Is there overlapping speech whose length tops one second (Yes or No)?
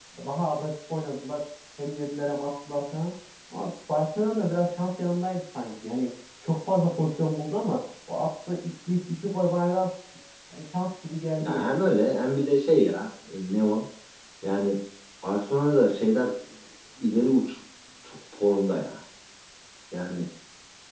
No